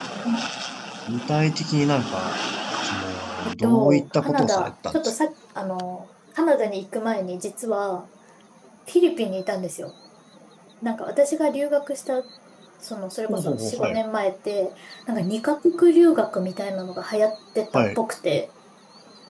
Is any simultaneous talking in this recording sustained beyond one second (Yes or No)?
Yes